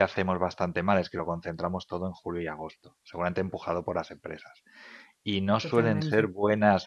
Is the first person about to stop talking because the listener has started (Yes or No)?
No